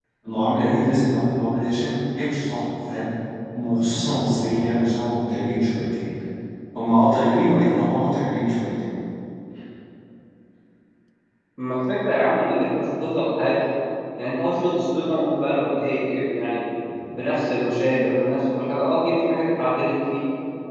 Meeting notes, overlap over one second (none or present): none